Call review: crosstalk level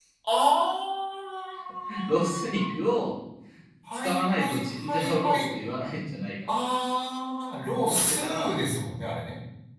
present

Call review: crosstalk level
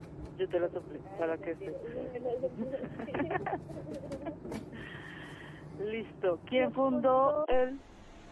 present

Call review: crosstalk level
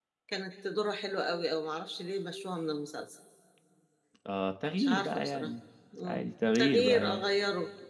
present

